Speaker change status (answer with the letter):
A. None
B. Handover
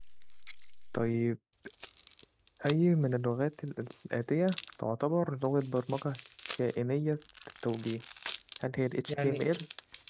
B